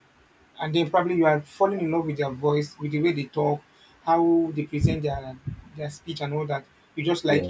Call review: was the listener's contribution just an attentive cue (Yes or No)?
Yes